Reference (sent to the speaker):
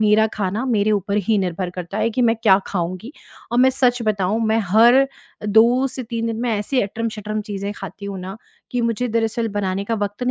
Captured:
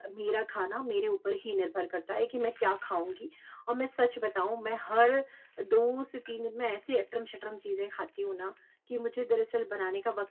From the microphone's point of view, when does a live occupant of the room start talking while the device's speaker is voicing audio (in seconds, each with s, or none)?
none